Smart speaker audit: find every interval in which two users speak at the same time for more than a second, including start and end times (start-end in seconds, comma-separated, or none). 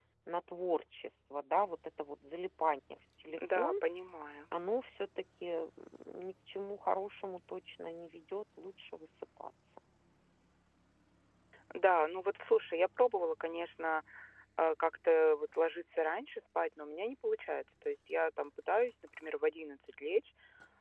none